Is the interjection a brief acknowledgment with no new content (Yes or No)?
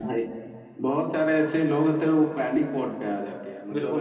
No